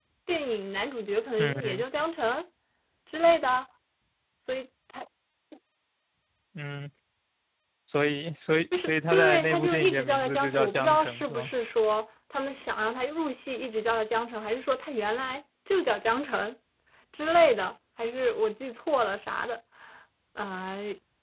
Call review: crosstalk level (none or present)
present